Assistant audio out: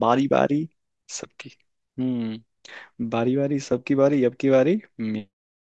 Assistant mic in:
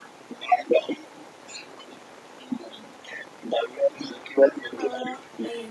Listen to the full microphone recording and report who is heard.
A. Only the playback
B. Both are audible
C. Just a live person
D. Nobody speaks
B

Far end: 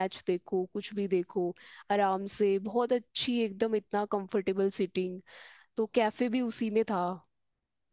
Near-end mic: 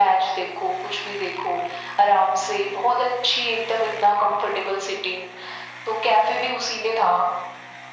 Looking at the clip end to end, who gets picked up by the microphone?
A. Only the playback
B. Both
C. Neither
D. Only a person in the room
A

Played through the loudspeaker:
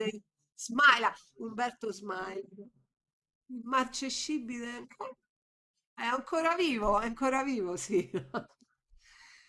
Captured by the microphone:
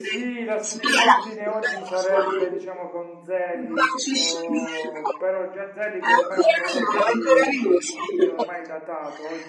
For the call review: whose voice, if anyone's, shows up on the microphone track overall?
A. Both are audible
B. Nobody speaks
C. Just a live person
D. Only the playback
A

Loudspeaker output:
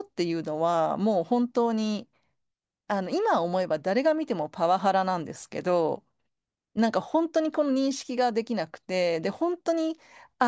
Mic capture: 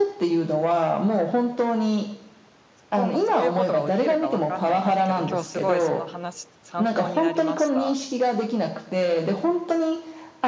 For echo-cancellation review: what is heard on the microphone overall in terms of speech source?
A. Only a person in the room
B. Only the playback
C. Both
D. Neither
C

